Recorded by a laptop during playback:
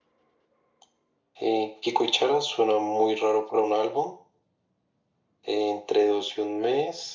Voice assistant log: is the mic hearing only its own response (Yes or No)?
Yes